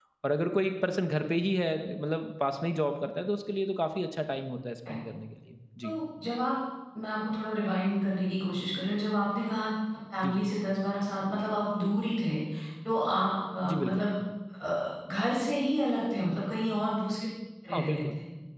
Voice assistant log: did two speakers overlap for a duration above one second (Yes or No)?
No